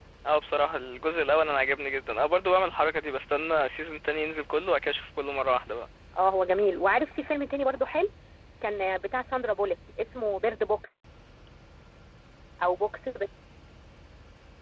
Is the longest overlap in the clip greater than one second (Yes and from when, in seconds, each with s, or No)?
No